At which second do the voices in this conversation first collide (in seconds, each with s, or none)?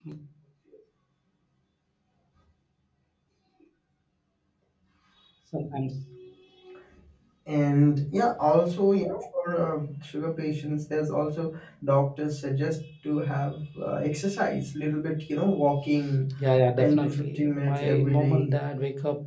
16.8 s